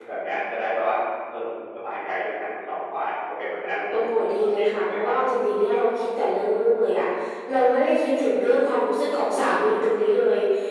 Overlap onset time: 3.9 s

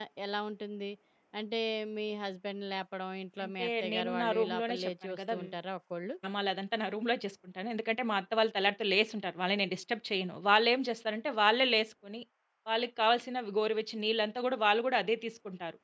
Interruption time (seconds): 3.4 s

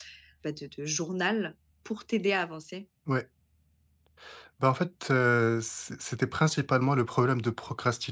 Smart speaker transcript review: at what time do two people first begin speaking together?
none

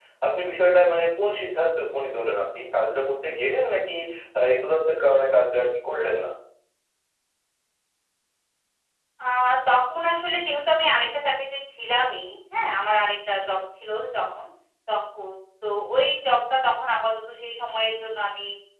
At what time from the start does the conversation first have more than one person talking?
none

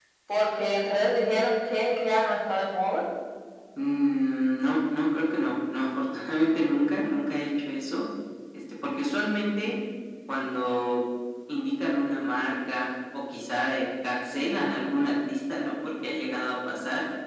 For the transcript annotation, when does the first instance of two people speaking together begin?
none

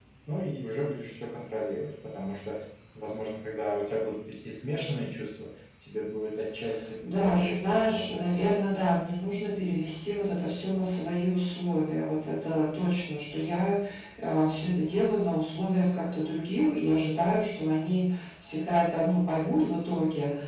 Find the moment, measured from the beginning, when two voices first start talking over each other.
7.2 s

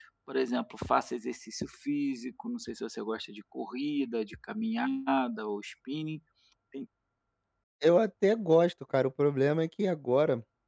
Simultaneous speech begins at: none

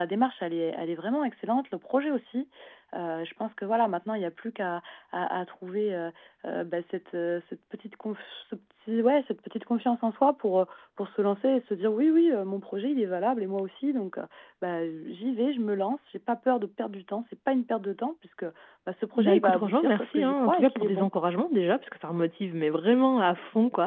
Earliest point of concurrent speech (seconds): 19.2 s

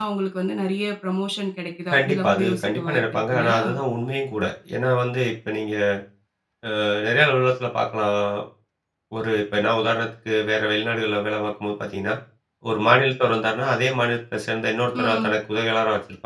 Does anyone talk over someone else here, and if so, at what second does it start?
1.9 s

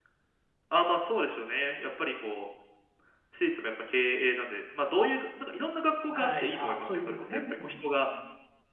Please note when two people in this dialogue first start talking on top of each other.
6.1 s

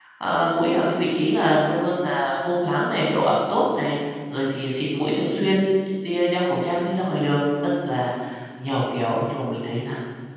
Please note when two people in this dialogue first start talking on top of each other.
none

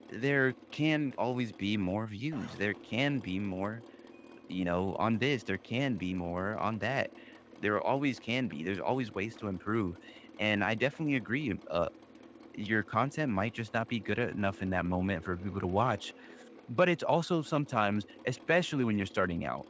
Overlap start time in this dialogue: none

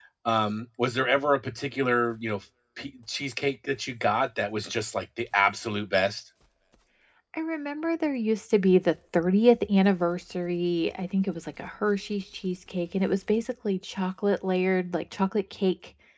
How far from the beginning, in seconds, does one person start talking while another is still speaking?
none

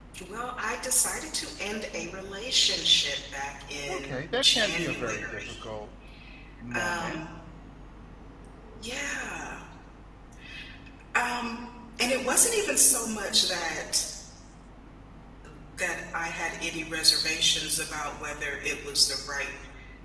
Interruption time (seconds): 3.9 s

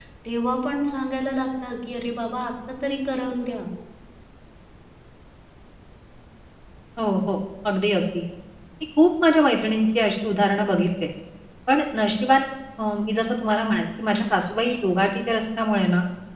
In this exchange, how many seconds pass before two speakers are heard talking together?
none

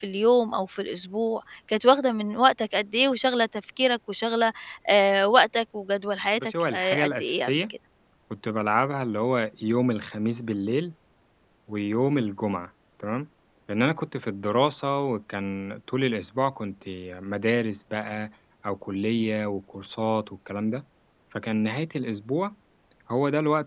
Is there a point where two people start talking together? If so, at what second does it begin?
6.4 s

